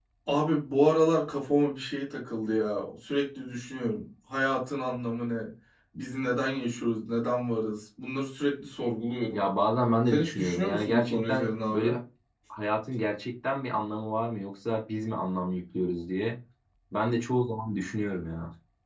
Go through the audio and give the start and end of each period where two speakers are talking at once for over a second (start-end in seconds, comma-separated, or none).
10.1-11.9